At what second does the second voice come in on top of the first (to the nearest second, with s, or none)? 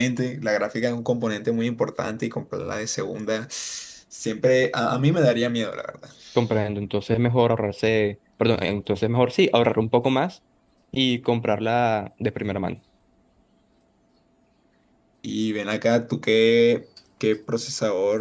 none